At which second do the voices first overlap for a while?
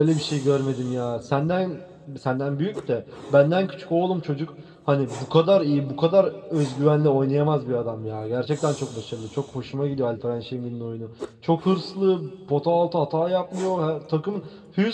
none

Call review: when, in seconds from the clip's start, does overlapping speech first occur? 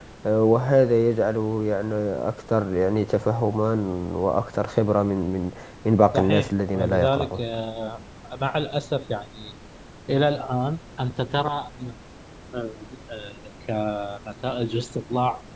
6.1 s

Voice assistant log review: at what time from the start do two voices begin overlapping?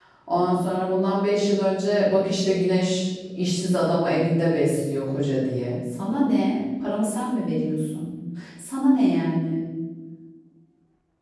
none

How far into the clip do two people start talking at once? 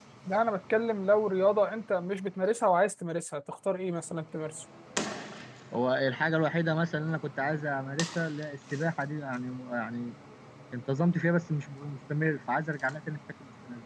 none

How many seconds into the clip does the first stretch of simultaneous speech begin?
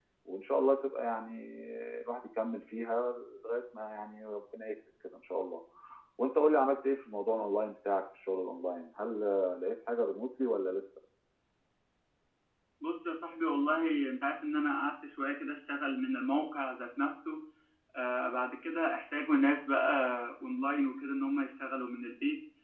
none

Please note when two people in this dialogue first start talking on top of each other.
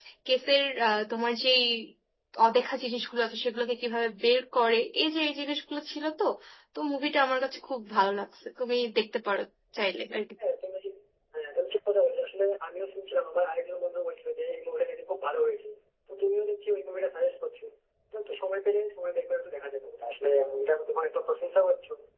none

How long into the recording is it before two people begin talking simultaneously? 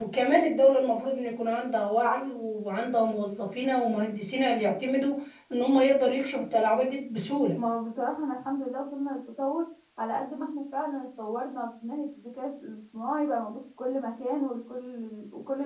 none

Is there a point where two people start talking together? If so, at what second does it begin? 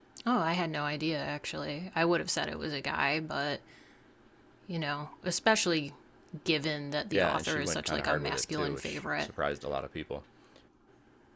7.1 s

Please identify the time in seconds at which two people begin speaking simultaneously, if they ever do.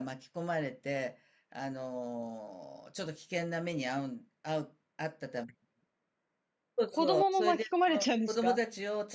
6.9 s

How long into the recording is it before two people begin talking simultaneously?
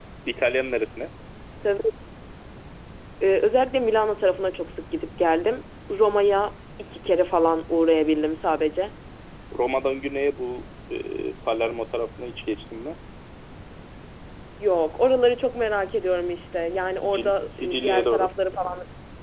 16.9 s

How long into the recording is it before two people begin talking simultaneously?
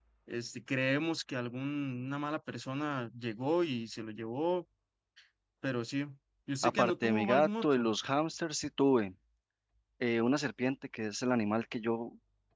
6.6 s

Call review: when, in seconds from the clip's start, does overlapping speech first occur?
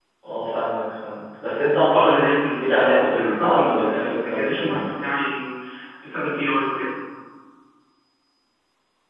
1.9 s

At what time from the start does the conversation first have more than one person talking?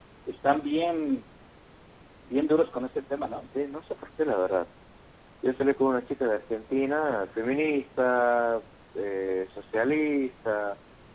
none

